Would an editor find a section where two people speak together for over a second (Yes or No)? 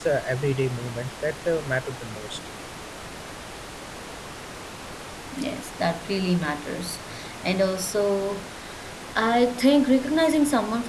No